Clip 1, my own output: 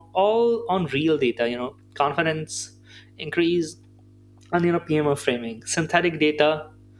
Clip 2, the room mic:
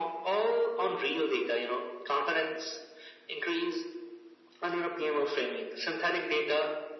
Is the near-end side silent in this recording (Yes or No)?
Yes